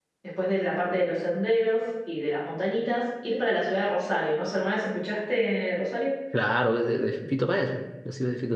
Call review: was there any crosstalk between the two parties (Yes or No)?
No